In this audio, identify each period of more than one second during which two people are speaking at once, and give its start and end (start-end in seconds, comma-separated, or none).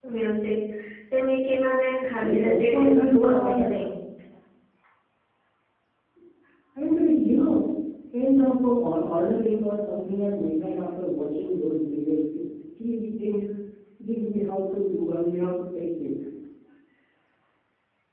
2.2-3.7